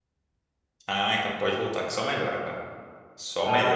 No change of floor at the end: Yes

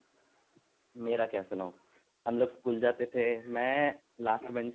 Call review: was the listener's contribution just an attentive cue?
Yes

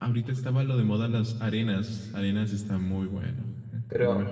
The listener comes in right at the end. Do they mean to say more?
Yes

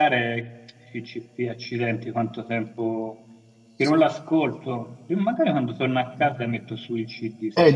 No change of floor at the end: No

